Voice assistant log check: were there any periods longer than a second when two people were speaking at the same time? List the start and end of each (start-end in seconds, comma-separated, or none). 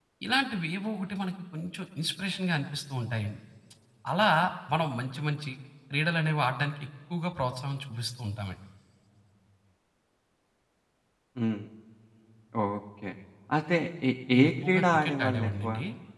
14.3-15.7